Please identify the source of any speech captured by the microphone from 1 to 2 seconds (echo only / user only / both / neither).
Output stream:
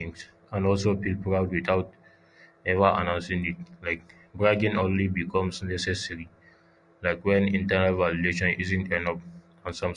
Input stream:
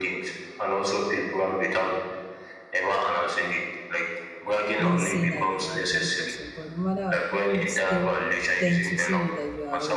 echo only